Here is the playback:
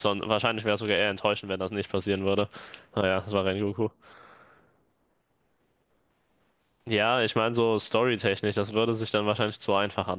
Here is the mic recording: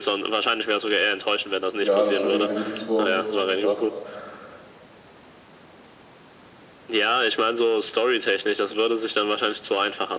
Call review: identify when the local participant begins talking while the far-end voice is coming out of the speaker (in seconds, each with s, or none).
1.7 s